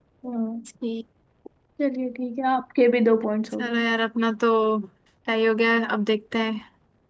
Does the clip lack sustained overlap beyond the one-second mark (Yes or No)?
Yes